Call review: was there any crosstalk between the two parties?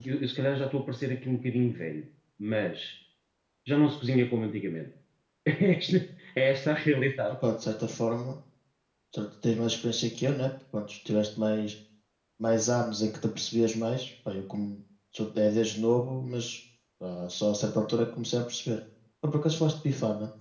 No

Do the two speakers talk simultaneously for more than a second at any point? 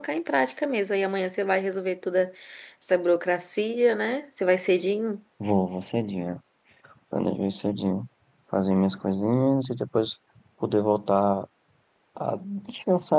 No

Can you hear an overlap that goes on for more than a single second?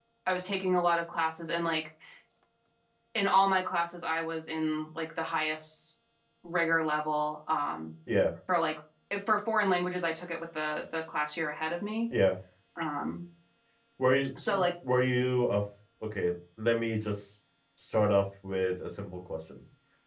No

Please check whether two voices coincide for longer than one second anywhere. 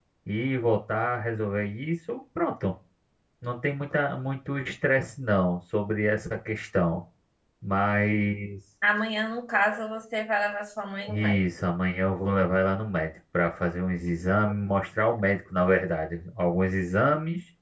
No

